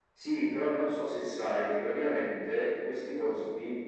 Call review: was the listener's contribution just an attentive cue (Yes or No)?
Yes